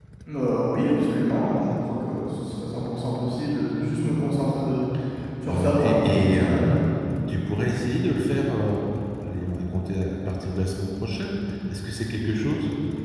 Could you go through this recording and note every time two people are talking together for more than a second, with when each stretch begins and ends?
5.5-6.8

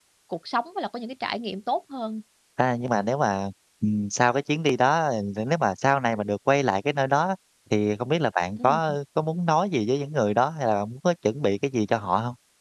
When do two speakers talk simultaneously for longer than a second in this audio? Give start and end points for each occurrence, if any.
none

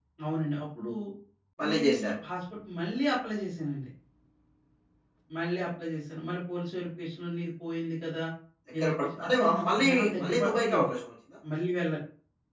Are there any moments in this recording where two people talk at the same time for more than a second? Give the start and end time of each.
8.8-10.9

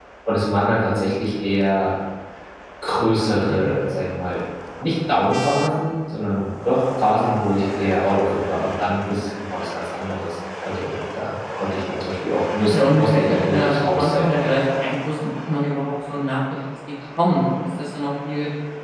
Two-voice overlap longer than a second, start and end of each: 12.6-14.6

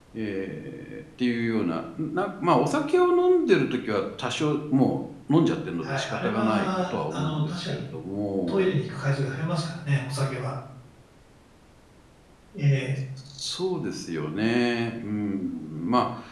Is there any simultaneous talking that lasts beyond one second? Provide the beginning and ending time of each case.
5.8-7.9

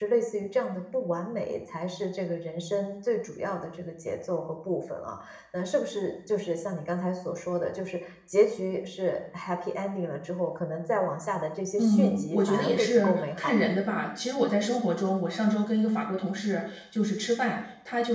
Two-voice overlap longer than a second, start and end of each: 11.8-13.7

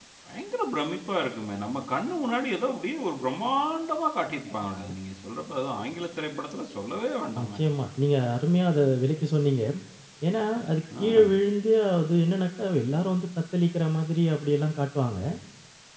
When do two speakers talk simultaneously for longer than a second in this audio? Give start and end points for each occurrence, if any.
none

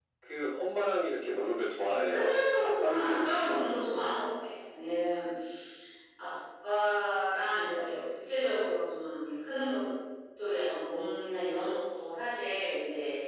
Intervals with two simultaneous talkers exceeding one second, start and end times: 1.9-3.9

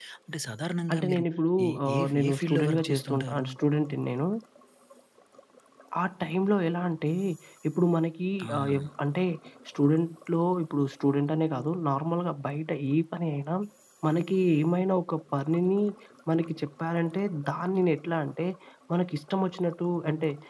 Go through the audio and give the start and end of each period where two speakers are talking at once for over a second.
1.9-3.5

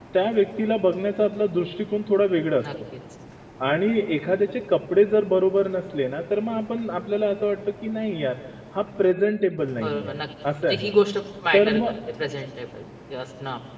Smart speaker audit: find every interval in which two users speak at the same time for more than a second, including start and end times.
none

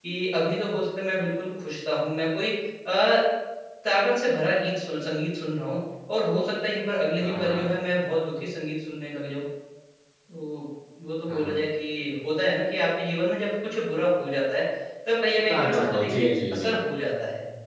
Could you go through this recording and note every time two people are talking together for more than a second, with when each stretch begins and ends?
15.5-16.7

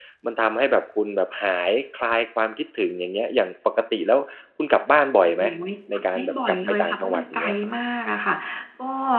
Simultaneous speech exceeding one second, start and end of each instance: 6.2-7.5

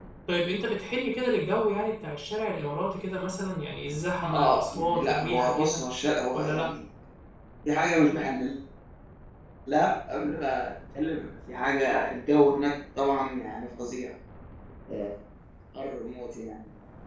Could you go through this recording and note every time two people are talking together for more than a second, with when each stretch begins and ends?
4.2-5.8

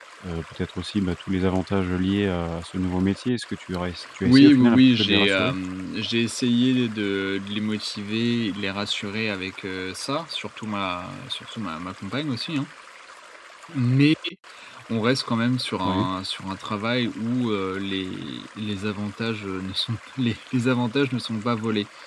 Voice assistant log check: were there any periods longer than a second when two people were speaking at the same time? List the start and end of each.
4.2-5.5

